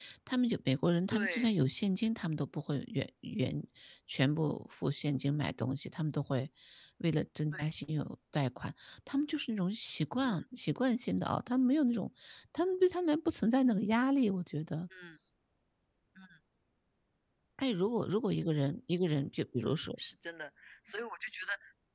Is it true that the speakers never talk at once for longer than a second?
Yes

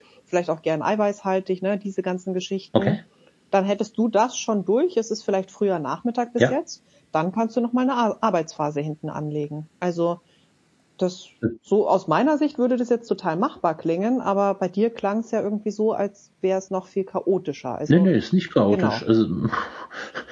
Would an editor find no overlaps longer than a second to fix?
Yes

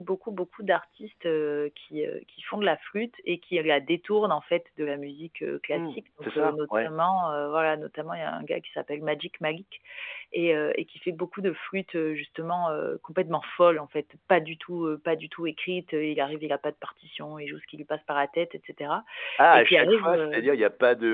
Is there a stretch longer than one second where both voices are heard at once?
Yes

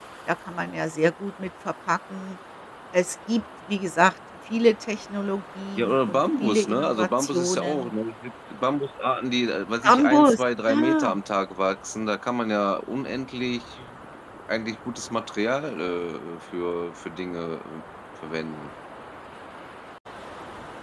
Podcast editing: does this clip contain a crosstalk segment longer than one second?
Yes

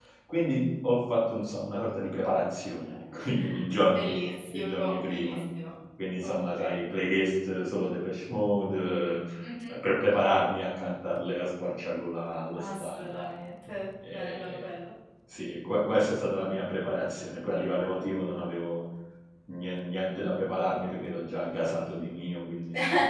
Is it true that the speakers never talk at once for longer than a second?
No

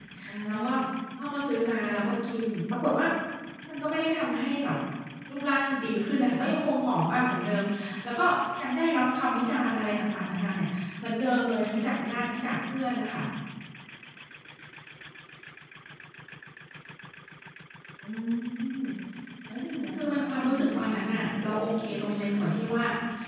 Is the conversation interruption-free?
No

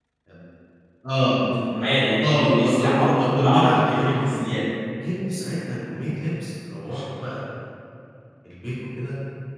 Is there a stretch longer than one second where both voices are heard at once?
Yes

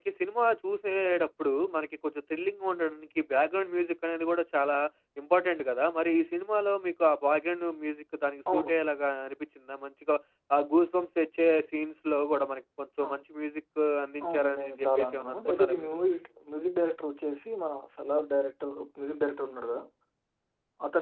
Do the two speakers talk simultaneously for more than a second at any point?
Yes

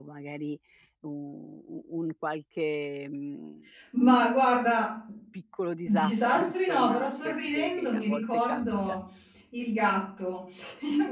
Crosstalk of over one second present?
Yes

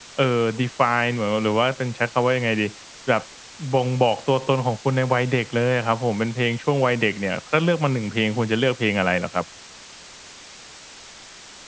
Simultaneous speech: No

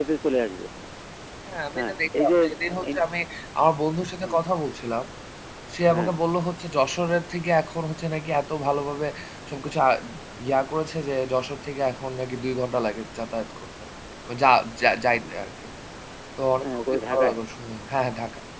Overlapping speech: Yes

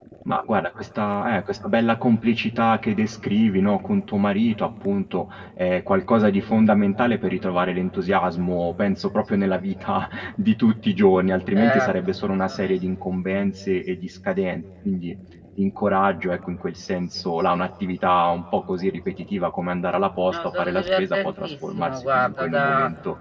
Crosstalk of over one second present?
Yes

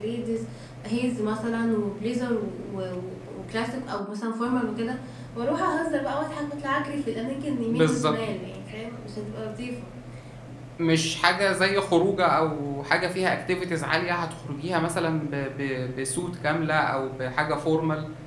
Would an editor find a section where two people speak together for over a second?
No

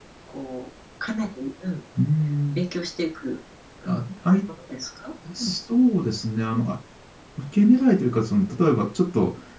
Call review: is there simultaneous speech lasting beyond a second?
No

